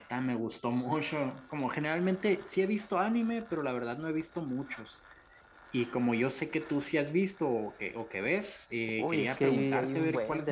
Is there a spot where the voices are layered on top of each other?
Yes, from 9.0 s

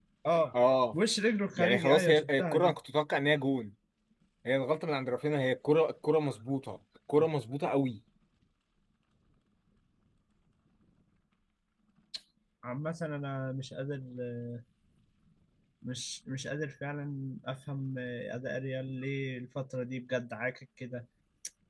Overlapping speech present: Yes, from 1.6 s

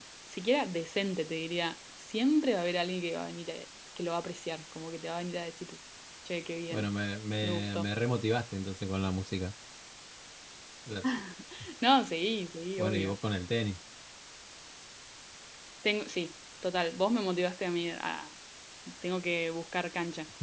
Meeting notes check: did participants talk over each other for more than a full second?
No

